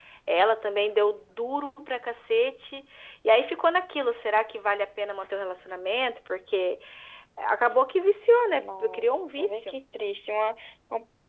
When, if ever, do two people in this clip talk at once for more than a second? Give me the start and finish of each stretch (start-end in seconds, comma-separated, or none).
8.6-9.8